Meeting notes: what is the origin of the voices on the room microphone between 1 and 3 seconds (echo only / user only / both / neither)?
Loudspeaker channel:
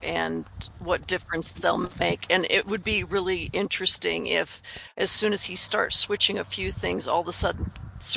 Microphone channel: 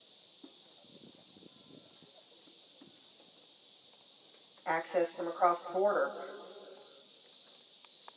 neither